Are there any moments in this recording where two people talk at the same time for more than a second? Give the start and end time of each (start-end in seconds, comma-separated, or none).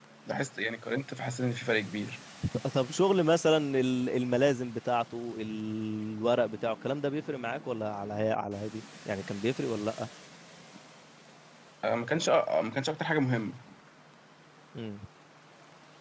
none